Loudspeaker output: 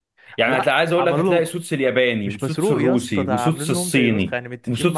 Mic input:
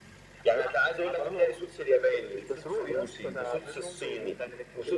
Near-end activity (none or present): none